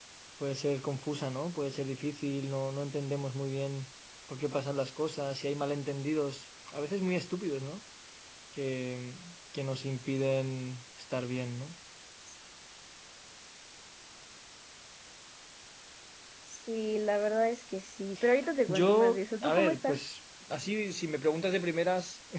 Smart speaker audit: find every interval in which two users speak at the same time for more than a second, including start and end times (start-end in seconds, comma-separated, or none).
18.7-20.0